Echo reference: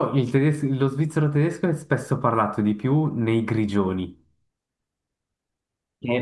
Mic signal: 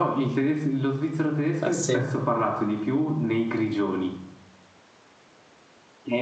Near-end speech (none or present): present